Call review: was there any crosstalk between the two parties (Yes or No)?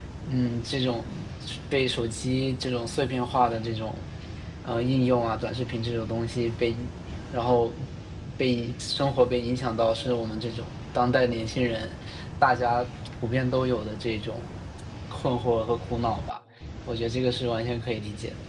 No